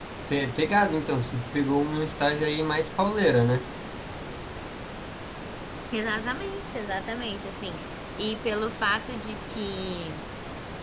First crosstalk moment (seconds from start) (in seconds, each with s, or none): none